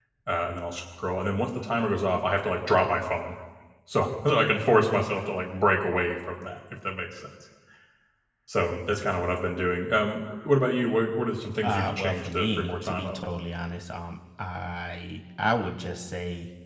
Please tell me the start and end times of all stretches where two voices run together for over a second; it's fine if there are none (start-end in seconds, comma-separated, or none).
11.6-13.2